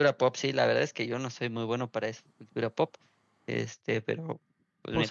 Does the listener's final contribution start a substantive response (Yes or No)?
Yes